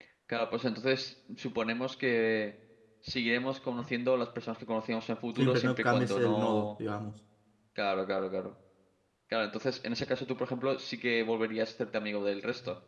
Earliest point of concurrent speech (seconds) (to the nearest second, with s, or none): 5 s